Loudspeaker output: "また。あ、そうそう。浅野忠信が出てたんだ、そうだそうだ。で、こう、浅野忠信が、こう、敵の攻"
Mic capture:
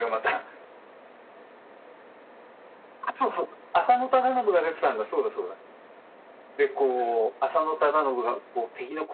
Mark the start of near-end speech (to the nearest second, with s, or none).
none